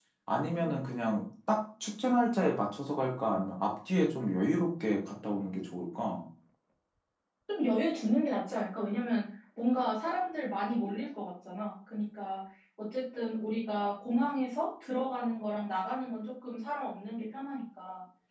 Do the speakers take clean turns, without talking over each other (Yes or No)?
Yes